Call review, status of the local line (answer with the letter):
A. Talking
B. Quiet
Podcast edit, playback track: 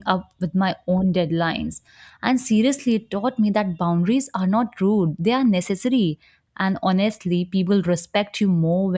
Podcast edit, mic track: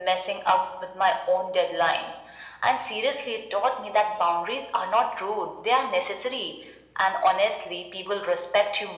B